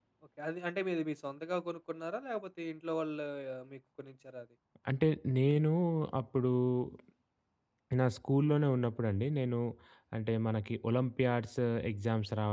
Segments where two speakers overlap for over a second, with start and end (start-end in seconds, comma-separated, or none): none